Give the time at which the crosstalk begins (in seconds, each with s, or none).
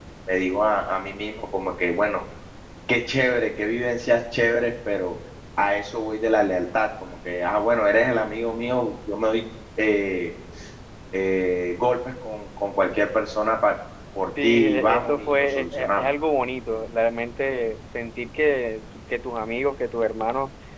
14.4 s